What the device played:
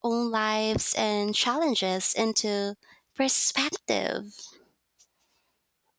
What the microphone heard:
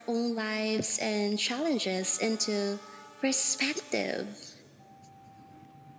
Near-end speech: none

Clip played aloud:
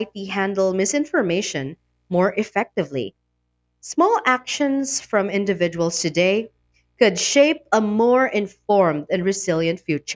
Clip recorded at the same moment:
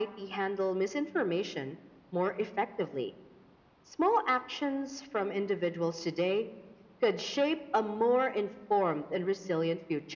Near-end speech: none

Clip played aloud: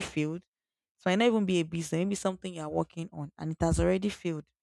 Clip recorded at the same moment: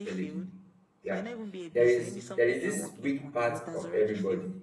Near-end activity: present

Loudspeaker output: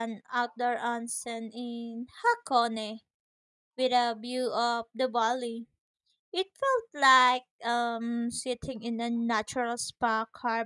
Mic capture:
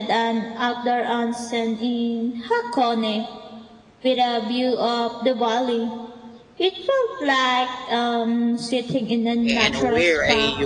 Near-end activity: present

